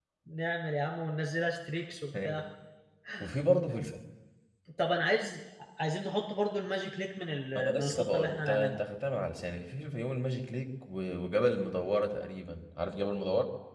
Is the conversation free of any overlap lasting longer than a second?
No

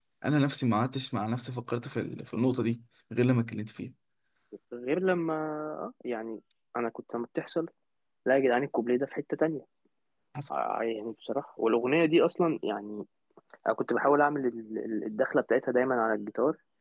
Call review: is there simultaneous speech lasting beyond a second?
No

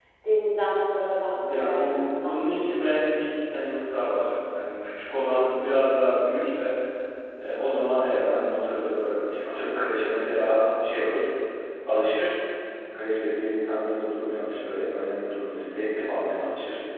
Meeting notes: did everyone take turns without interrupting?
No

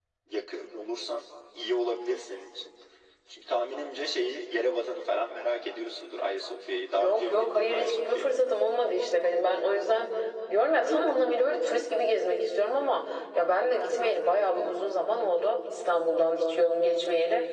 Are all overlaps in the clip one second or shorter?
No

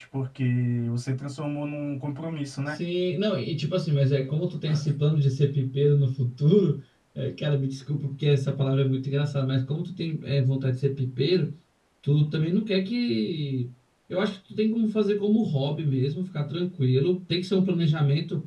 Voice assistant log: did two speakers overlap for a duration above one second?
No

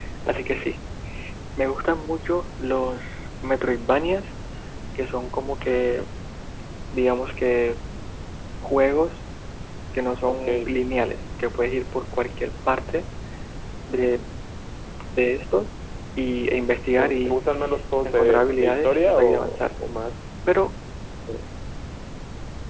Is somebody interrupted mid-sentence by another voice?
Yes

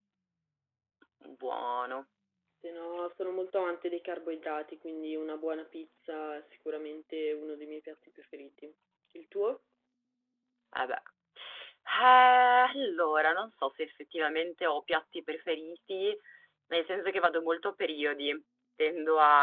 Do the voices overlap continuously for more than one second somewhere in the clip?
No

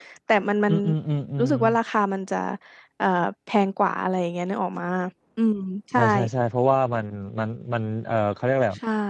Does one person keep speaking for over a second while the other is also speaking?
No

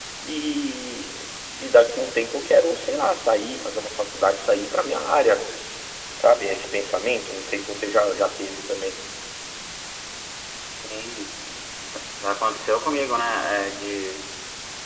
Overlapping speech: No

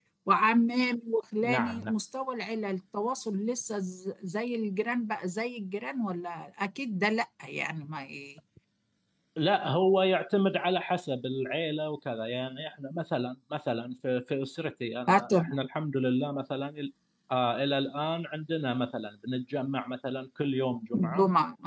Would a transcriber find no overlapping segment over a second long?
Yes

